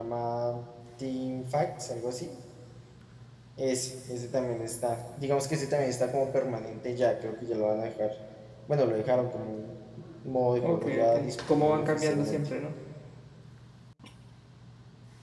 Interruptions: present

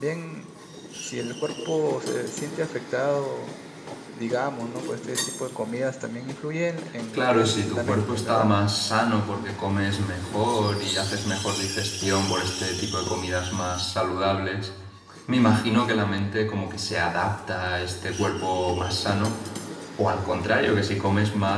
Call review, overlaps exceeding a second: present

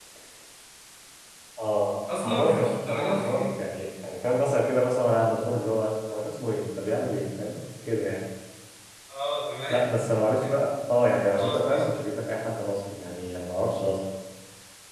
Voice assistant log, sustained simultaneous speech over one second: present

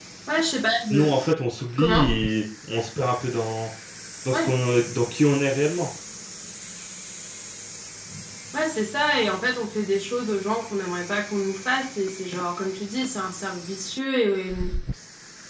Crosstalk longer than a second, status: none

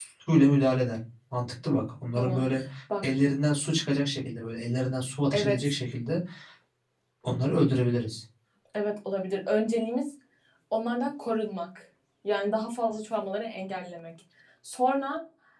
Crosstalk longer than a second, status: none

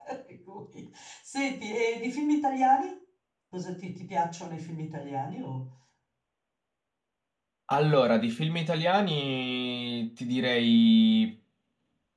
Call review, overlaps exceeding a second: none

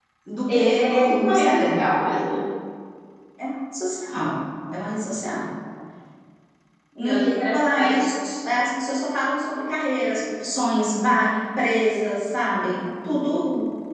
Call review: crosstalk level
present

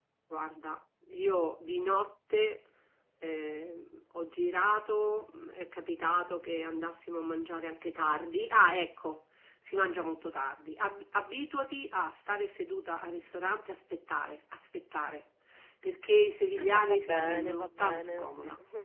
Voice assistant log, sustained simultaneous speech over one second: present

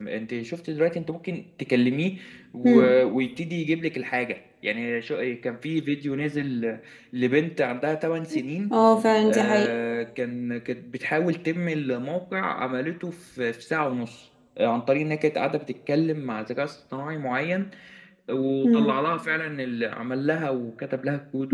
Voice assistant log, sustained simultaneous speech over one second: none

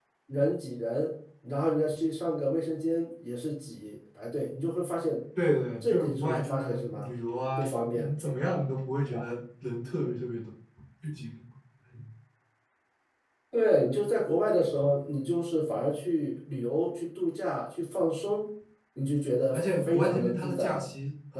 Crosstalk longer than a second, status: present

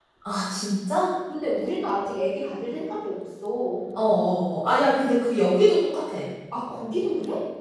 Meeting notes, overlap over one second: none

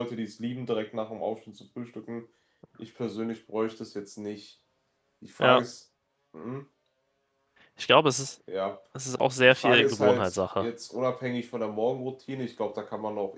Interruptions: present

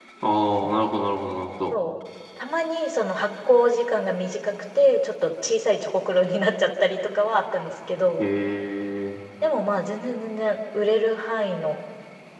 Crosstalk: none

